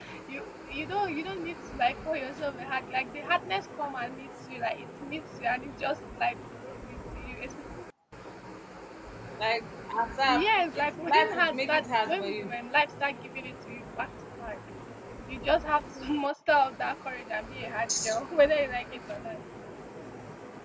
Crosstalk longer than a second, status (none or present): present